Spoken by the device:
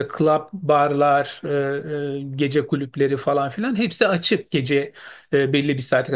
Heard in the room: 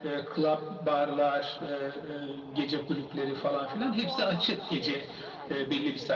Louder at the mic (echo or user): echo